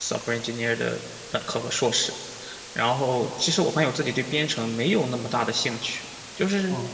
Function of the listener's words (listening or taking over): listening